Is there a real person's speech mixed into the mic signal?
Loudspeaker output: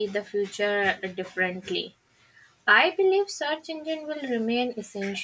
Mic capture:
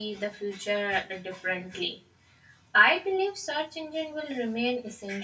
No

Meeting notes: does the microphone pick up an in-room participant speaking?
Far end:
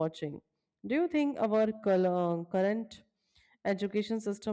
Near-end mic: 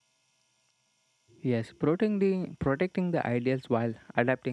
Yes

